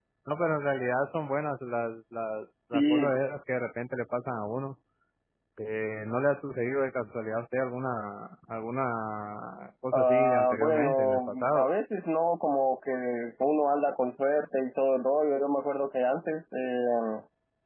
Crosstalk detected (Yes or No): Yes